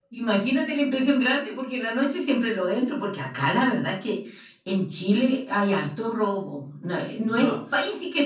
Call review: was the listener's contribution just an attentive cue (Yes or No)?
Yes